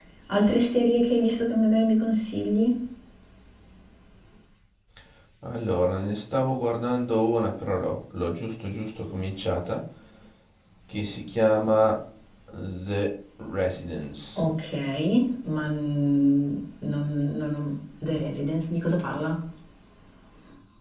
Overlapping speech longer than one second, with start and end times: none

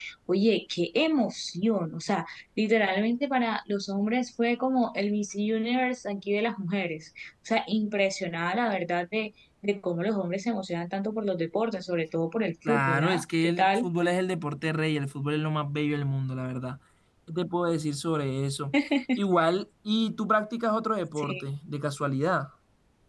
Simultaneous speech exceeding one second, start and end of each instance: 12.7-13.9

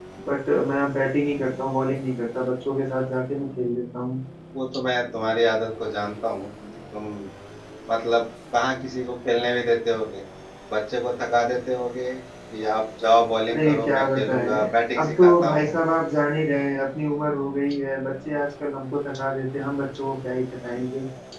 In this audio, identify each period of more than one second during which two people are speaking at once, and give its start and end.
13.5-15.7

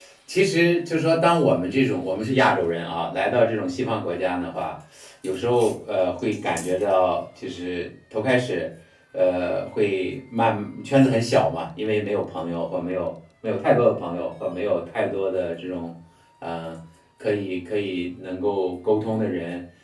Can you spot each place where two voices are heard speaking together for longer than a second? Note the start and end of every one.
none

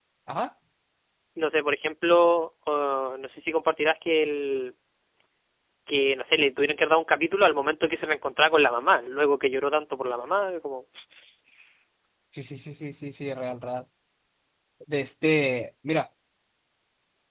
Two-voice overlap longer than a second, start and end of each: none

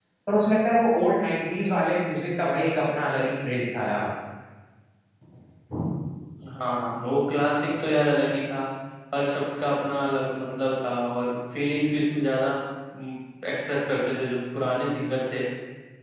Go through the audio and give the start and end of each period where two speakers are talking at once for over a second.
none

